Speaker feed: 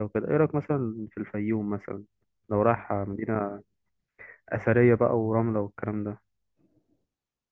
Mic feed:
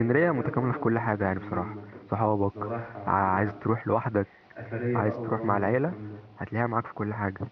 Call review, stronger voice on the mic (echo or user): user